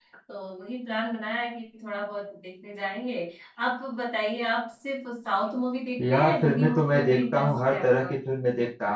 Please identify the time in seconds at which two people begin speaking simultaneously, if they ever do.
6 s

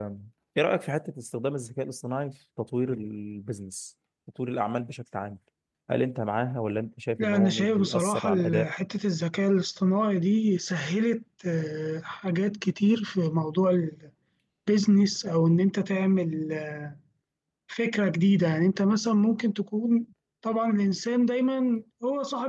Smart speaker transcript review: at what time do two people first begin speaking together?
7 s

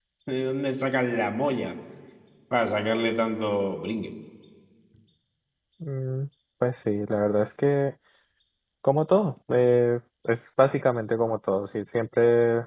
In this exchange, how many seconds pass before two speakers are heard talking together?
none

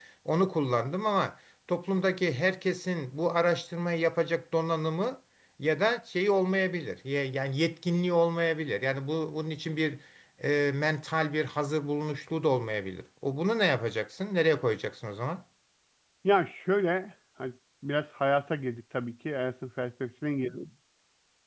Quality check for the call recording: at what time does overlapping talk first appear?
none

